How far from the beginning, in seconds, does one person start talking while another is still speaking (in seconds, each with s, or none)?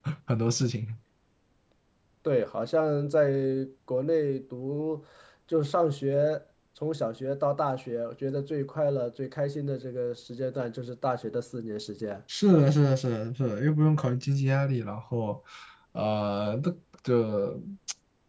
none